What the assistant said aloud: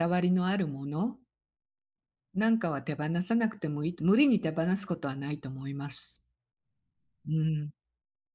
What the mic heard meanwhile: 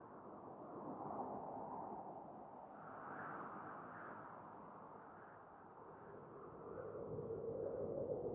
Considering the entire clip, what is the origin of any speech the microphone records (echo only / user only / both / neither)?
neither